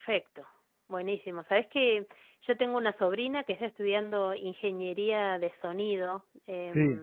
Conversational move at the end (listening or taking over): listening